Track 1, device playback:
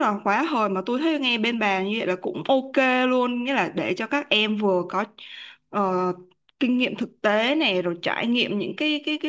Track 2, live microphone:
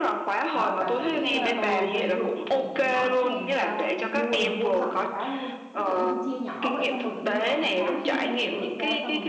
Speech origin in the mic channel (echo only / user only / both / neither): both